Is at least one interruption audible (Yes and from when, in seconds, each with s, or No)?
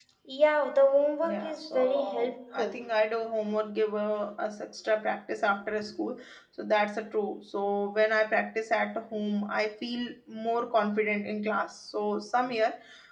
Yes, from 1.3 s